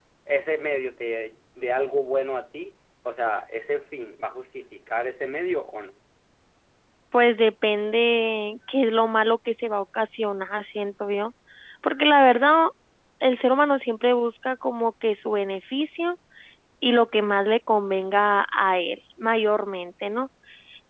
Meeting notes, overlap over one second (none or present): none